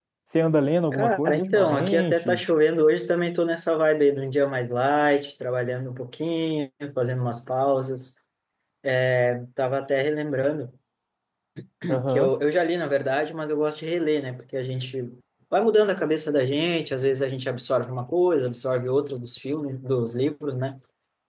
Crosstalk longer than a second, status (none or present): present